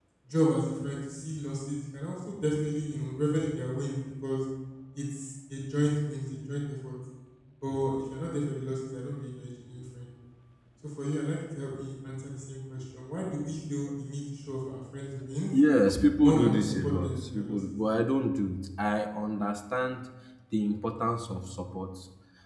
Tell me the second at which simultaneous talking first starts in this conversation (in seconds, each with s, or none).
16.2 s